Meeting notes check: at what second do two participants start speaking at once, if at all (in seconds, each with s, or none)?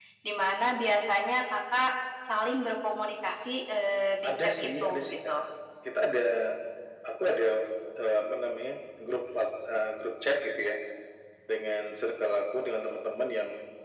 4.2 s